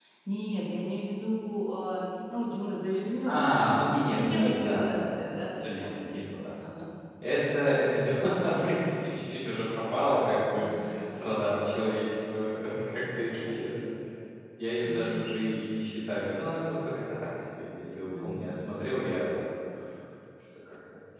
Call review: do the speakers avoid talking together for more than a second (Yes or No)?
No